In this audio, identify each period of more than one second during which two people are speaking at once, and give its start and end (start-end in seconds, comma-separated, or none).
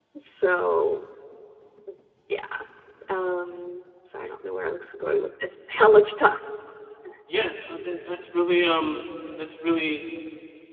none